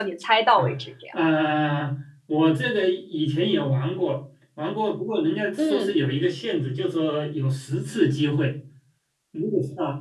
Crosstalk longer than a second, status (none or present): none